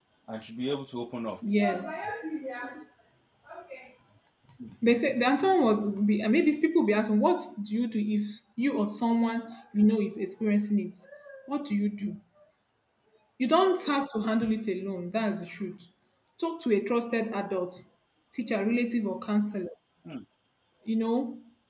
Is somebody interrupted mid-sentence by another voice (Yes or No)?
No